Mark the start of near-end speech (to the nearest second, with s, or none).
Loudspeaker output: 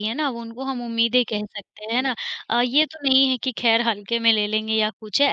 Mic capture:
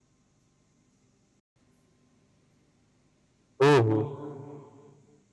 4 s